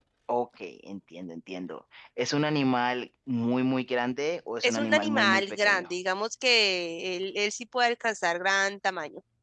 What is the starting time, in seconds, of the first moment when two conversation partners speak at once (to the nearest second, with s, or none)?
5 s